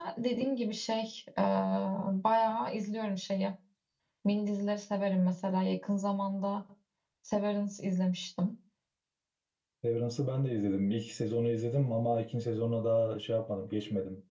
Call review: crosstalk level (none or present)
none